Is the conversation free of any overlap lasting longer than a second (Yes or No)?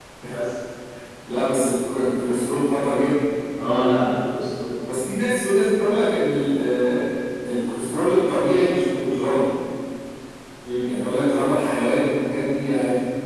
Yes